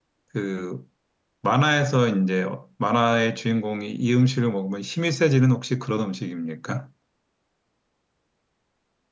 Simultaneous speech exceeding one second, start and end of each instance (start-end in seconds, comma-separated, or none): none